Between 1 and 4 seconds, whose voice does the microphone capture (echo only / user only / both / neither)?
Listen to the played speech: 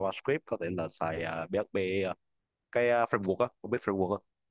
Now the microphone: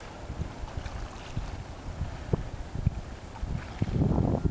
neither